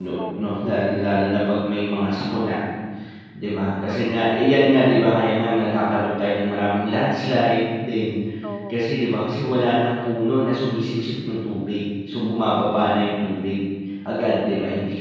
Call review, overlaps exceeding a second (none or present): none